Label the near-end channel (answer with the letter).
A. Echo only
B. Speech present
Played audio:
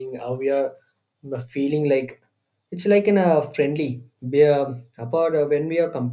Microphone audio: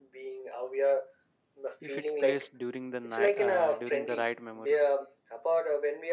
B